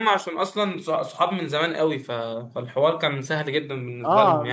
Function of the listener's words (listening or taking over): taking over